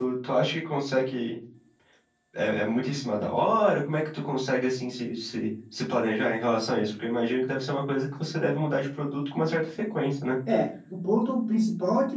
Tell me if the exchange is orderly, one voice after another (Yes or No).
Yes